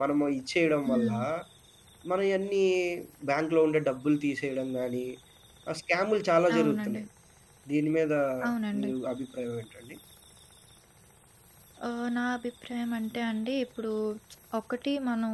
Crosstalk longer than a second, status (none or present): none